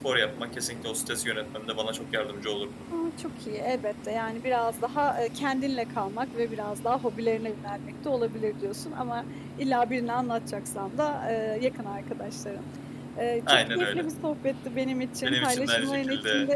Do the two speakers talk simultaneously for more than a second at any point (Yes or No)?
Yes